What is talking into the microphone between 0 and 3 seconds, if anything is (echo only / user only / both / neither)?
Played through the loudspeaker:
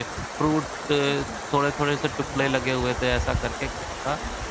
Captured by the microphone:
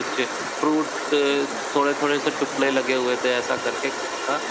echo only